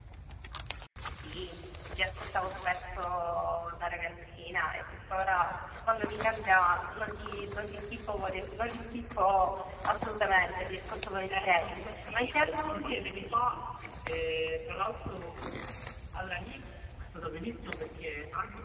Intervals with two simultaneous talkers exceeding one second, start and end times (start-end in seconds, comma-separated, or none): 11.3-13.4